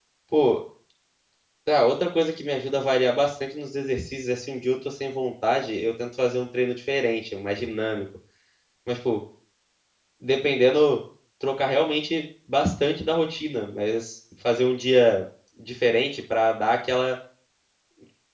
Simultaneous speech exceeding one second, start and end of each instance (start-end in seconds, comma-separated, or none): none